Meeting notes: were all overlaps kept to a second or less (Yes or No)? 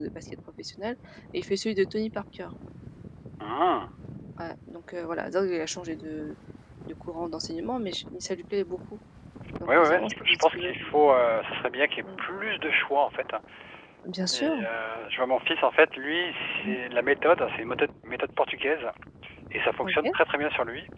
No